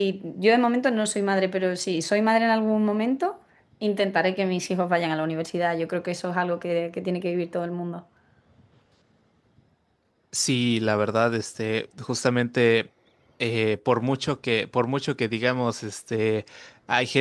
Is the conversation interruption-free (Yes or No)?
Yes